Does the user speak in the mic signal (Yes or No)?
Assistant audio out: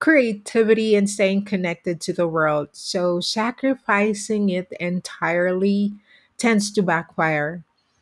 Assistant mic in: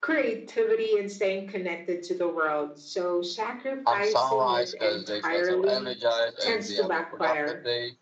Yes